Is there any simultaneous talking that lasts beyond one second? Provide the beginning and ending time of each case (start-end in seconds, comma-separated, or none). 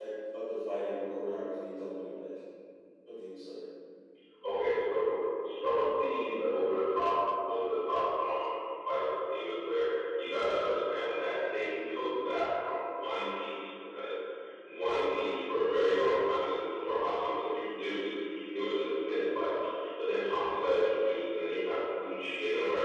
none